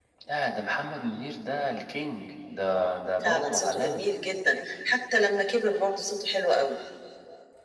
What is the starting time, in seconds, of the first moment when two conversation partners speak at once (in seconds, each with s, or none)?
2.7 s